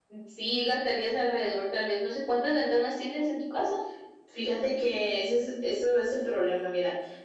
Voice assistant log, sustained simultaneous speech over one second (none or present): none